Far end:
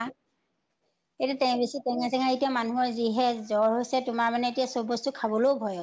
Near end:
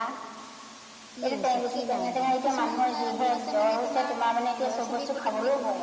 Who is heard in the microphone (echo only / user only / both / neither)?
both